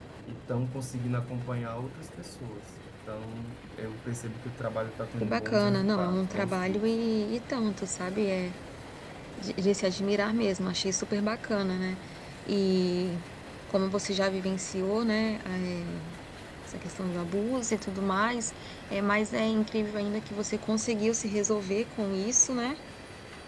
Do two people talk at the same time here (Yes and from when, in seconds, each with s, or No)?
Yes, from 5.2 s